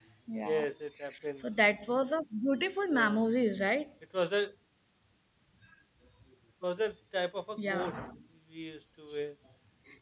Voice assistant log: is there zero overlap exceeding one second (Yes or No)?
Yes